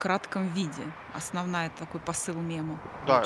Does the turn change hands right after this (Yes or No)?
Yes